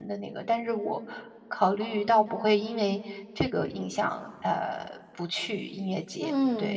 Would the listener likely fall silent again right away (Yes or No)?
No